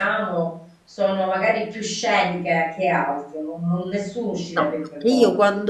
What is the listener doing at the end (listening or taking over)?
taking over